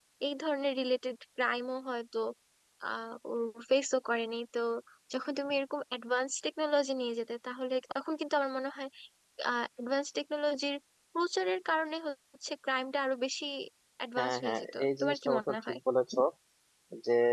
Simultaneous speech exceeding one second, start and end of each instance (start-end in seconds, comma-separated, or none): 14.2-15.8